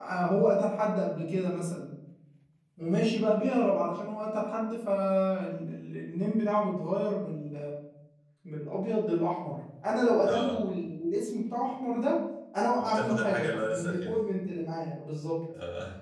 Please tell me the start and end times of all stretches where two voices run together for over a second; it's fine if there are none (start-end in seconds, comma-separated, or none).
12.8-14.2